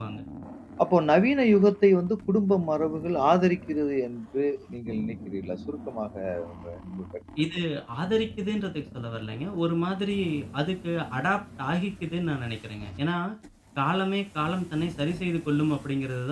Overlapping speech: No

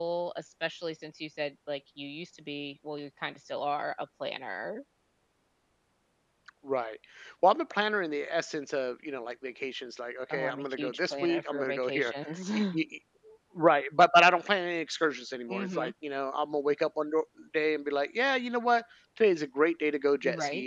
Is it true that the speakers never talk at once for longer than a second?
No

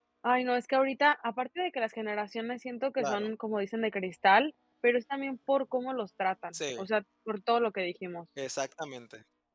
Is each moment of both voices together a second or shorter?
Yes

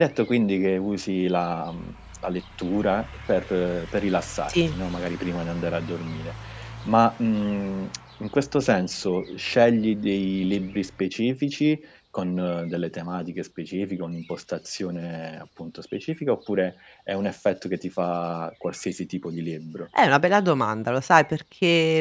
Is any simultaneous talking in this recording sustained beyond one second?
No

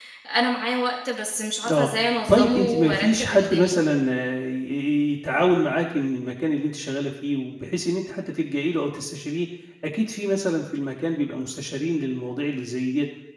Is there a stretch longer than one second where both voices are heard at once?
Yes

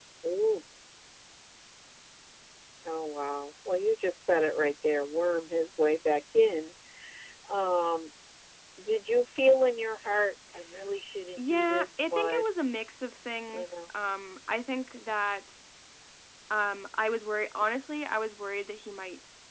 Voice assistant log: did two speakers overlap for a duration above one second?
Yes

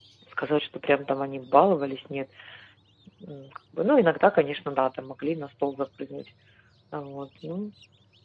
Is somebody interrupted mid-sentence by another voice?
No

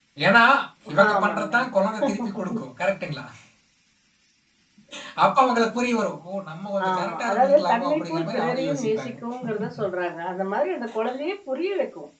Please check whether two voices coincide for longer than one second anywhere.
Yes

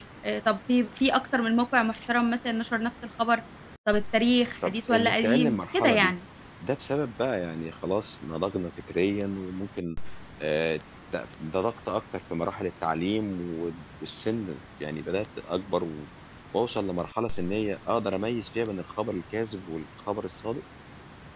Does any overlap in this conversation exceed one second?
Yes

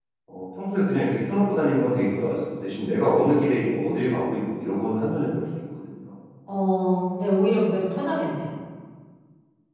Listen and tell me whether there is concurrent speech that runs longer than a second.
No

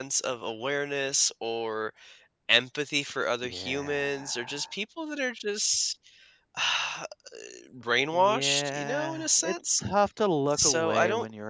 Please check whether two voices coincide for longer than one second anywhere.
Yes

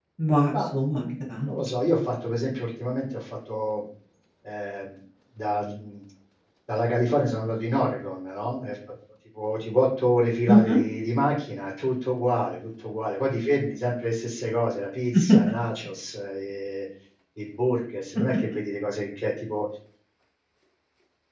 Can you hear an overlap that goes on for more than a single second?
No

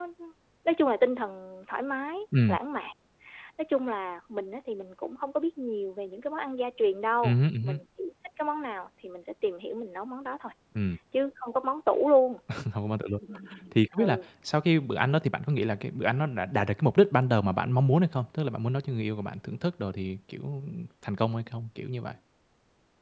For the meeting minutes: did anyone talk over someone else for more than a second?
No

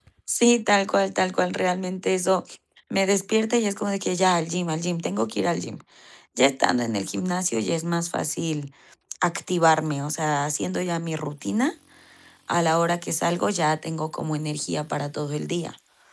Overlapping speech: No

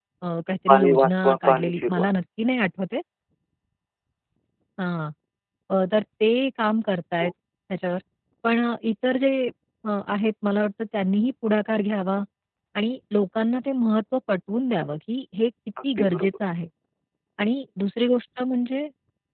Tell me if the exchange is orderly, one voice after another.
No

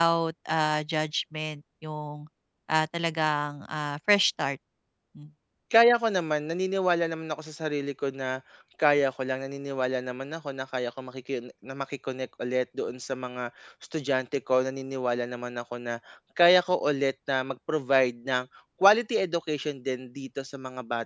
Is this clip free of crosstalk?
Yes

